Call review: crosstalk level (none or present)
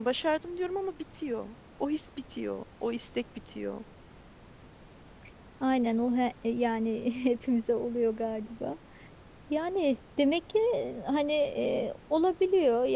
none